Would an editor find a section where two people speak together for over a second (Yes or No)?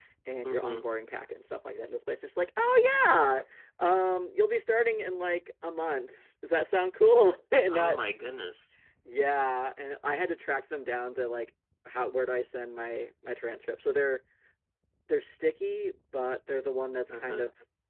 No